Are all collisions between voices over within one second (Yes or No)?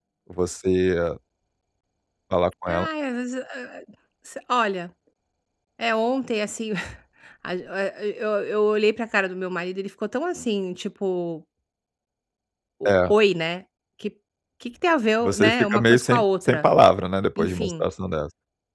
No